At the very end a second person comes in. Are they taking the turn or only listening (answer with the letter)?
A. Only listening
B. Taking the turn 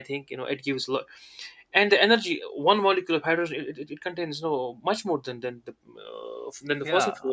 B